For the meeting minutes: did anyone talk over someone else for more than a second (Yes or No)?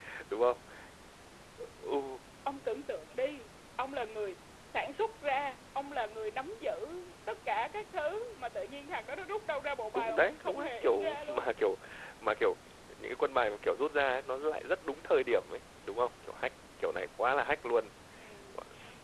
Yes